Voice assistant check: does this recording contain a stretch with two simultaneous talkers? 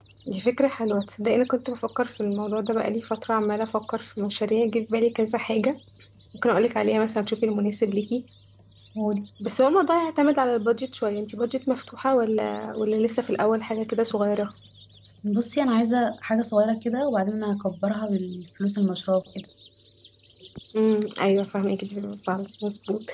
No

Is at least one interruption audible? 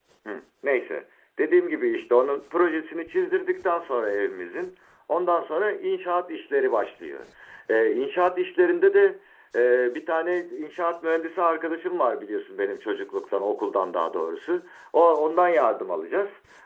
No

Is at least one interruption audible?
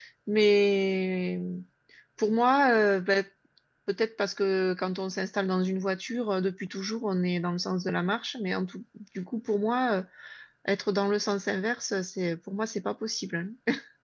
No

